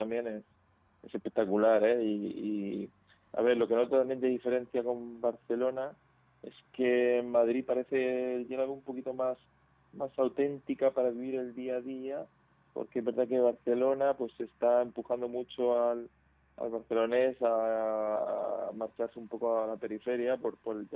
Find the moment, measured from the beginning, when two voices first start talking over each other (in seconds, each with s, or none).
none